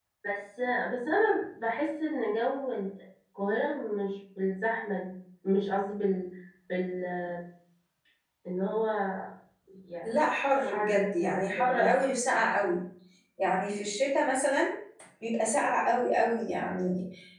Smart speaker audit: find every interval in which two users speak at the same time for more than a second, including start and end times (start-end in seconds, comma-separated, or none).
10.6-11.9